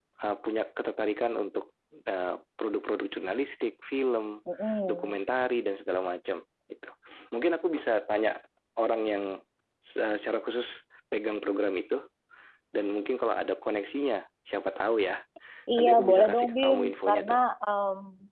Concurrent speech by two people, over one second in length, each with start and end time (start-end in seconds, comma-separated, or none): 15.8-17.4